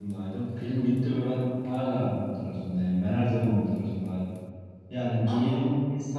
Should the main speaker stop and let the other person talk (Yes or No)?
No